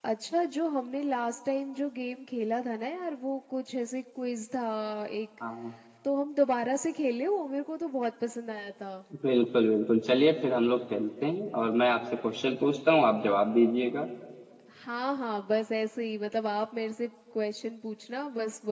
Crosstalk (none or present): none